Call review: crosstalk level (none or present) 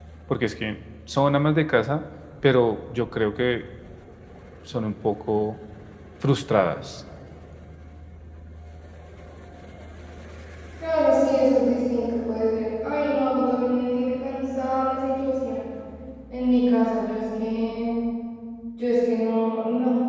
none